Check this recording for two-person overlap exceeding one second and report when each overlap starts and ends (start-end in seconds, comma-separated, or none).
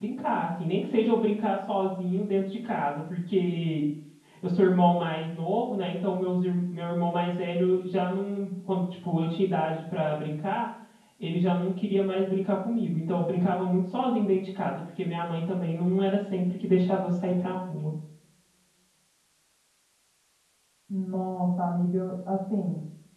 none